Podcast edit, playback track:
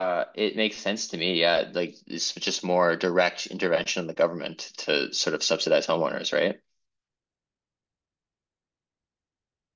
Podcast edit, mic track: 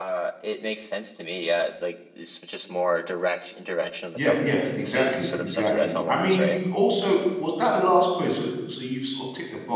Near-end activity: present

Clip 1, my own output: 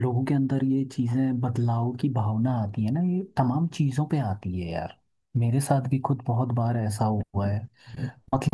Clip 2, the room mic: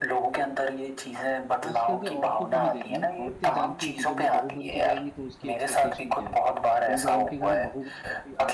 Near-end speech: present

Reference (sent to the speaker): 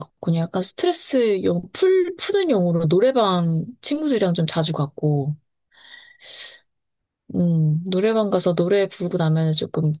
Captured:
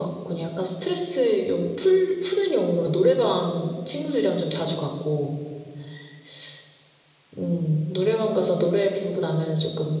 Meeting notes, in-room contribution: none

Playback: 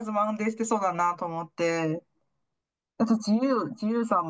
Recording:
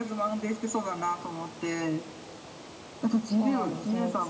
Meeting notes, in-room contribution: present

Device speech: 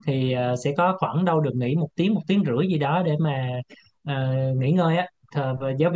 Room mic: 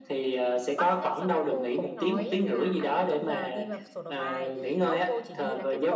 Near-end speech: present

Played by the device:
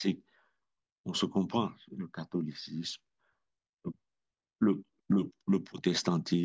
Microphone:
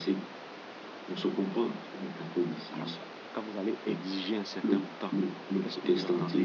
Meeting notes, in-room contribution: present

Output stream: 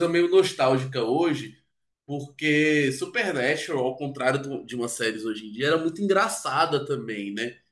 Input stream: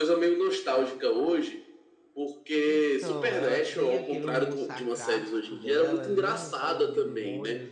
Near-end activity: present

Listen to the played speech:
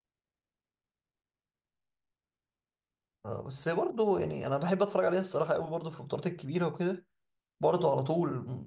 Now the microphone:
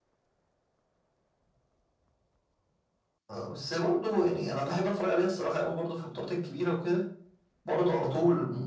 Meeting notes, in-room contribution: none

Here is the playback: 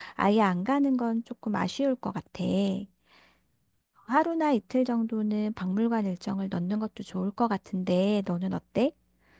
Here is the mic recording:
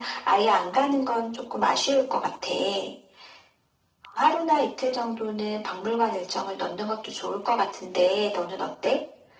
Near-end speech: none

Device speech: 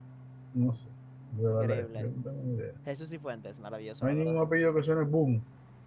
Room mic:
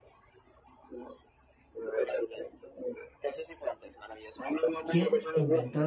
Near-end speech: present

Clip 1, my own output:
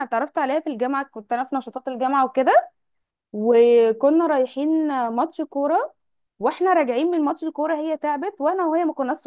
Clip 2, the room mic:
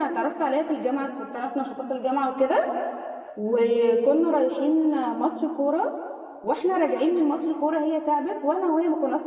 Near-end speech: none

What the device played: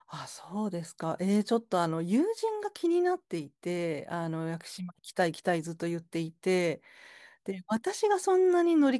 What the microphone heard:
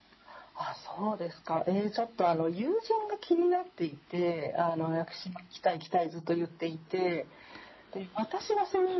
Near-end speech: none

